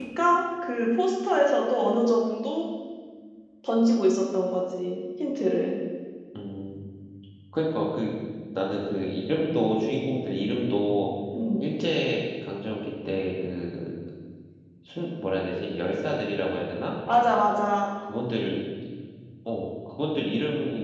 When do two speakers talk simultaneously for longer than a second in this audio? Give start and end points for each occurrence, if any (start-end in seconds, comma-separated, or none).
none